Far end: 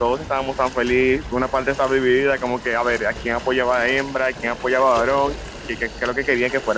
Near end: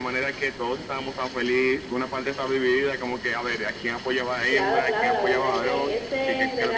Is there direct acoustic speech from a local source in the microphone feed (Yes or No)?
Yes